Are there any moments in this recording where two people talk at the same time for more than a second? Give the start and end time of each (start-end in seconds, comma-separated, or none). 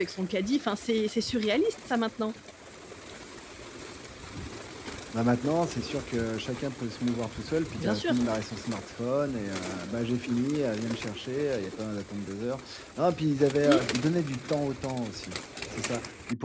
none